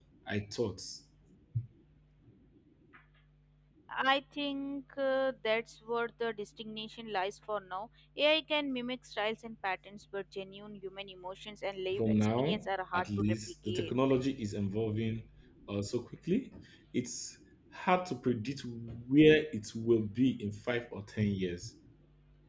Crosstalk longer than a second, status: present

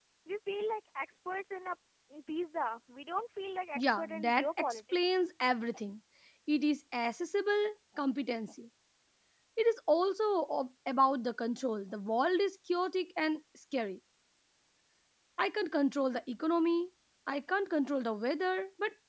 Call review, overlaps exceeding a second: present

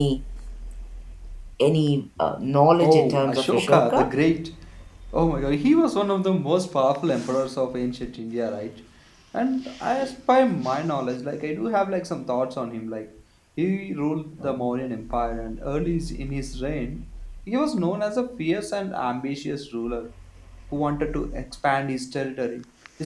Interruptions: present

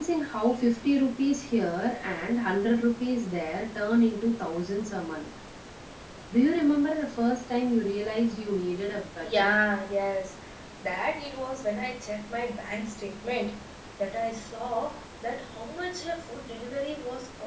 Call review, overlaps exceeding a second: none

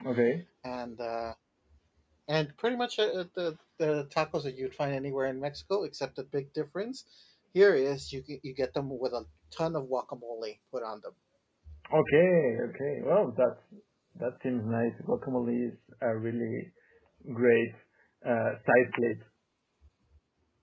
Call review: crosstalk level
none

